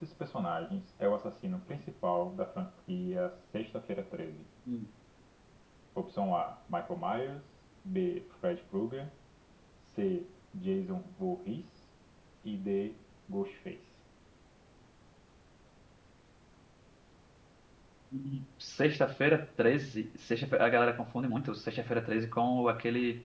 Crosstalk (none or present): none